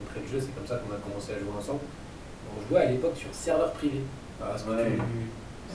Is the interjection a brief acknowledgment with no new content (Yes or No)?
No